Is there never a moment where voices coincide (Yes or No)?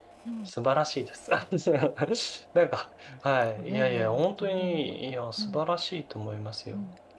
No